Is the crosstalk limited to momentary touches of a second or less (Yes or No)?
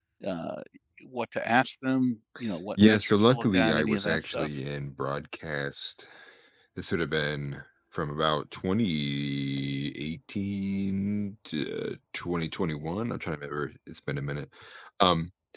No